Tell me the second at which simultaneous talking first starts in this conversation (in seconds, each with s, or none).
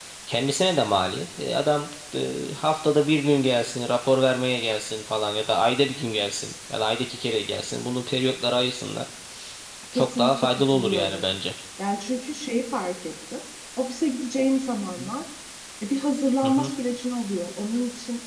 9.9 s